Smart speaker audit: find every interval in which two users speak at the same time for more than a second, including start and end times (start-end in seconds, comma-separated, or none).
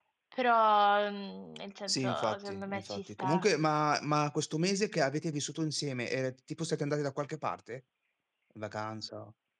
1.9-3.5